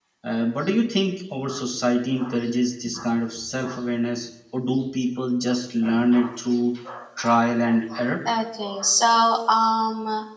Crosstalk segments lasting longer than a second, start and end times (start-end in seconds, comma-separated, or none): none